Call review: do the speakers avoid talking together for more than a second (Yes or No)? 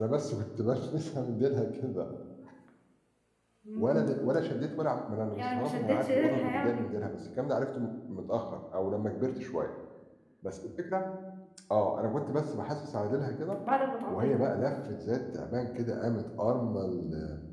No